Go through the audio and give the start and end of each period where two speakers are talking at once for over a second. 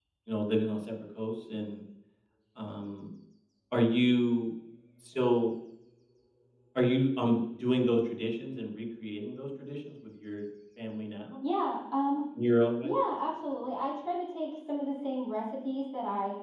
none

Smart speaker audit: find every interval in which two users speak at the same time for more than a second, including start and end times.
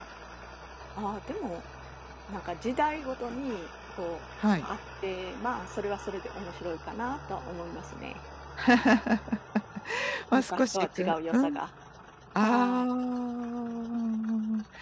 10.3-11.6

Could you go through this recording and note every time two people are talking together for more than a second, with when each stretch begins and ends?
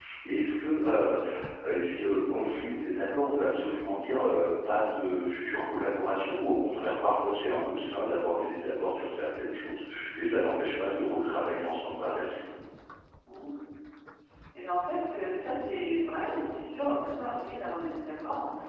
none

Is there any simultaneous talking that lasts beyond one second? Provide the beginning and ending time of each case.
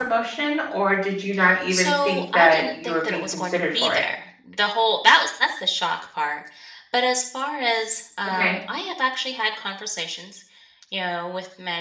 1.7-4.1

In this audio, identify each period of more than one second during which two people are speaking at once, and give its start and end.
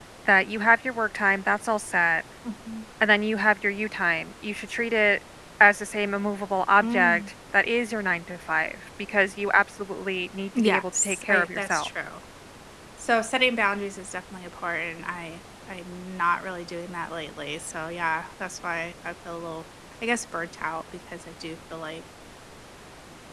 10.6-11.9

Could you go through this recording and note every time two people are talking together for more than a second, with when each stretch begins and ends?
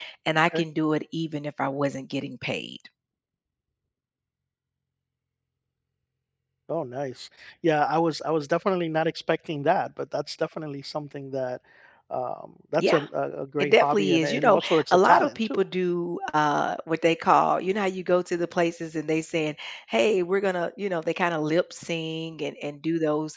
13.6-15.6

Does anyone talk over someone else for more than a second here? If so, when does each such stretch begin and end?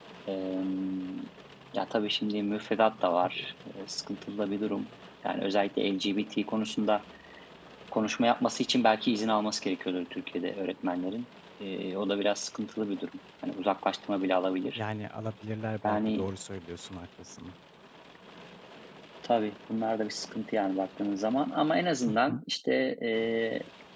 none

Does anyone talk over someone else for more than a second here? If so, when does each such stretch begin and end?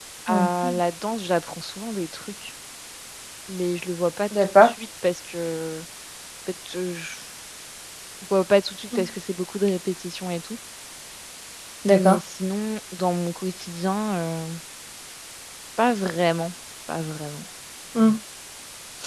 none

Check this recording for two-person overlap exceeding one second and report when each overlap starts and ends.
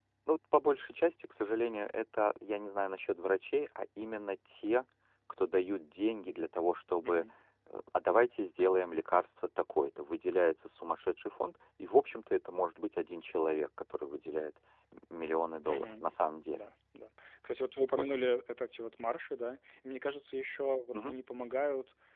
none

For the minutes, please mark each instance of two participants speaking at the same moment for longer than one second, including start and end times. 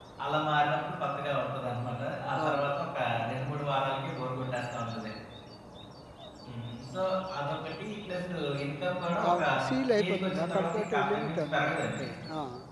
10.0-12.1

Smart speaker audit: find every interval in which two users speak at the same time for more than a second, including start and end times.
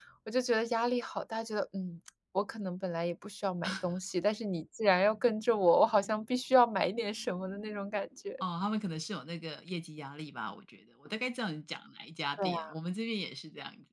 none

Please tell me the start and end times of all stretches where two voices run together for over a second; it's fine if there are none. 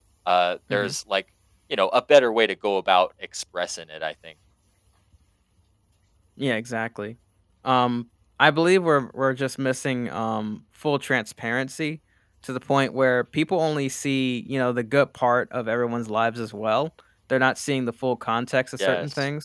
none

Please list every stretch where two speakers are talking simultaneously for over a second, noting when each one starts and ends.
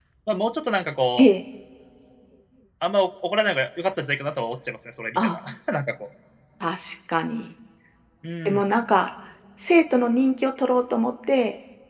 none

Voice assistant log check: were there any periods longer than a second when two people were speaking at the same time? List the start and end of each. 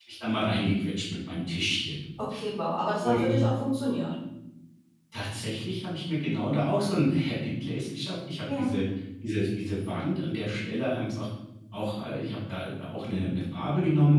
none

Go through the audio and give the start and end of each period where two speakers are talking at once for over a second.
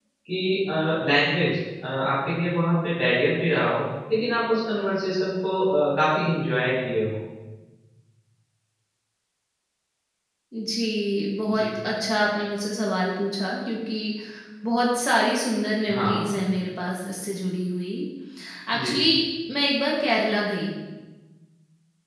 none

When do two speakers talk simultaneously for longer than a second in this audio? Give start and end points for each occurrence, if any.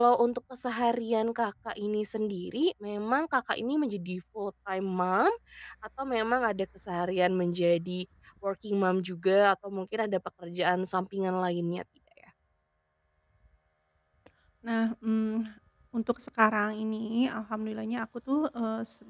none

